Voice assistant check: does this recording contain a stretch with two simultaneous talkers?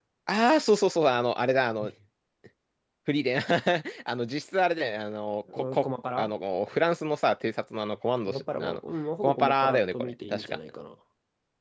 Yes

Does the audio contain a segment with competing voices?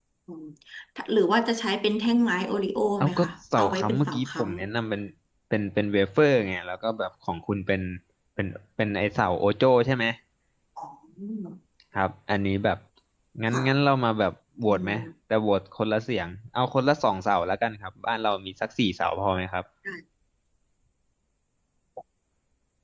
Yes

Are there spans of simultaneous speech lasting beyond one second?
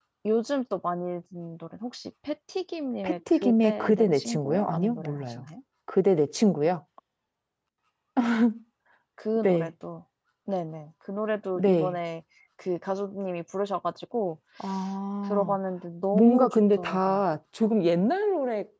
Yes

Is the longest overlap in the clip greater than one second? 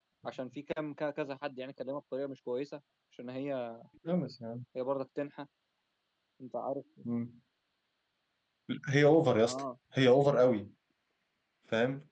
No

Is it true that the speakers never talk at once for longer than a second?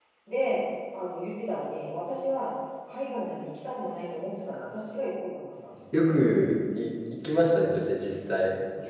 Yes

